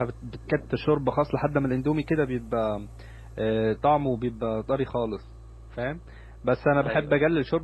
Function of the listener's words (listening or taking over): listening